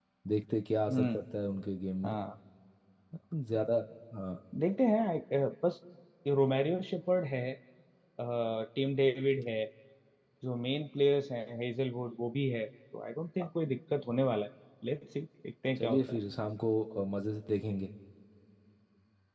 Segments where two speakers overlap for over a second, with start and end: none

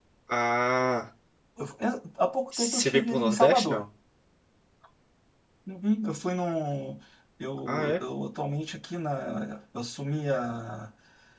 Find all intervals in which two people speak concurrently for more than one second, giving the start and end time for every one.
2.6-3.8

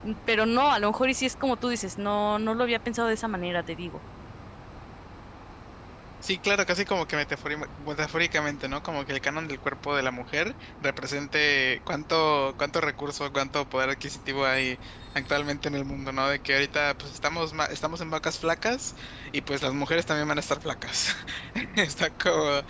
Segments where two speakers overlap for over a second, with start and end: none

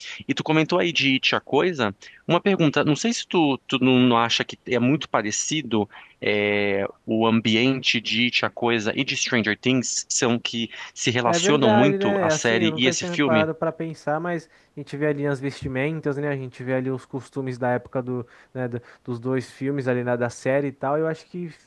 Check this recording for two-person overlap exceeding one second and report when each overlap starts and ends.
11.3-13.5

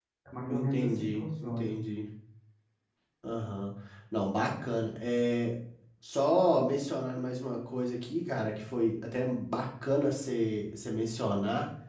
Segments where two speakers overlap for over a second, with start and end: 0.5-1.7

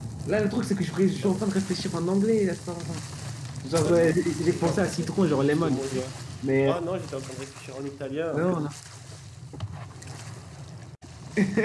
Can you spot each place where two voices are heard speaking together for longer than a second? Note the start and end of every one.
4.5-6.0

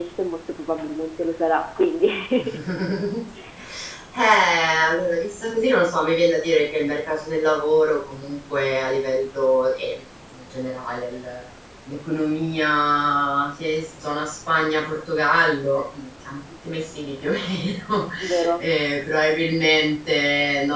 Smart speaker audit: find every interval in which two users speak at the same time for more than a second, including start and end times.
none

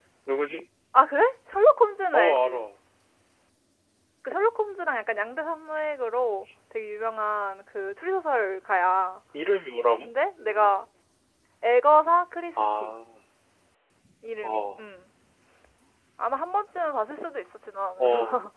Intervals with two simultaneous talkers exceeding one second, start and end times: none

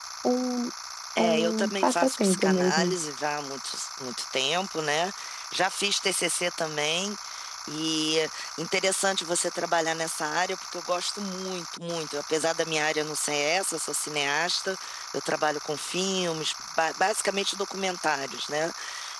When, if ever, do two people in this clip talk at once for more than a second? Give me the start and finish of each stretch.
1.2-2.9

